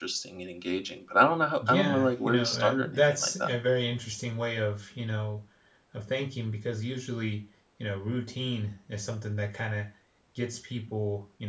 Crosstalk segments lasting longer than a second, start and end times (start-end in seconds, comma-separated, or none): 1.7-3.5